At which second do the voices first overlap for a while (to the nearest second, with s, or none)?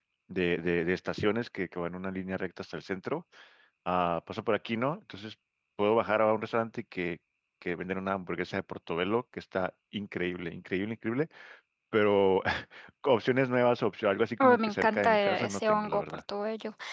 14 s